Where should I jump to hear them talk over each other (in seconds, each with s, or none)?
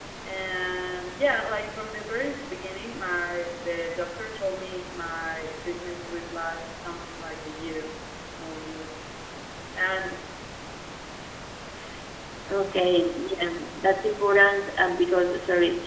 none